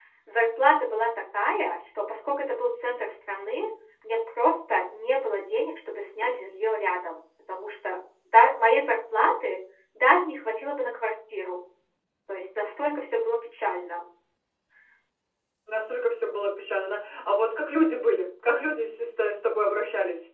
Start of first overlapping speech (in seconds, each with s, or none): none